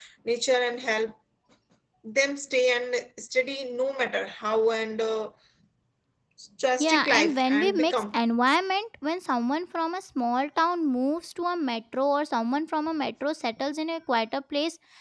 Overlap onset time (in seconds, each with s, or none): 6.8 s